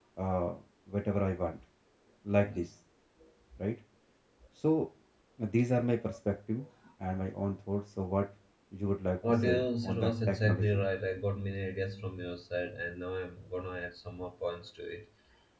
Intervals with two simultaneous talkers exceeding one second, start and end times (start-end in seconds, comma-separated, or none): 9.4-10.8